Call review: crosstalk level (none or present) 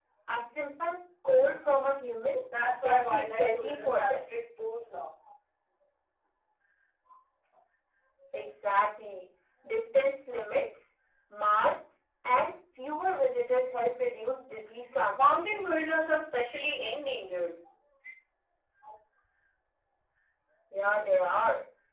present